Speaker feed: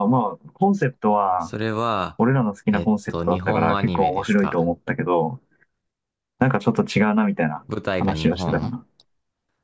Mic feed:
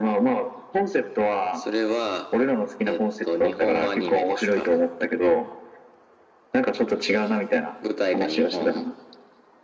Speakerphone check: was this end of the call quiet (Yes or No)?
Yes